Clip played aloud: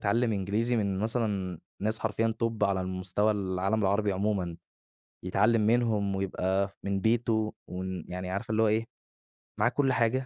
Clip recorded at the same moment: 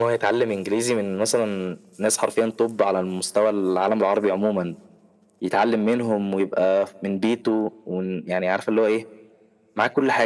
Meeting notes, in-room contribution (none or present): none